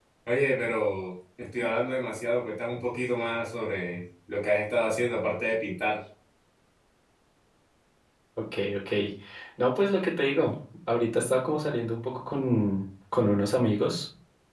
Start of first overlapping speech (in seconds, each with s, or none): none